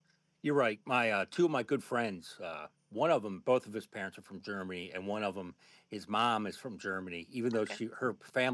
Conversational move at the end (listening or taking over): listening